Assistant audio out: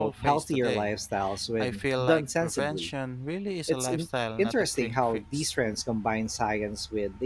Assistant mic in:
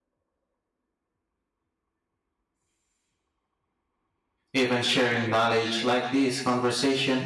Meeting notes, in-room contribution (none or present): present